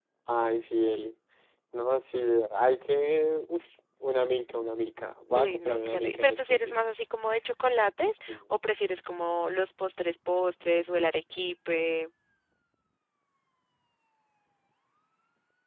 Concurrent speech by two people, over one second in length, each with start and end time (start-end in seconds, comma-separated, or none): 5.4-7.0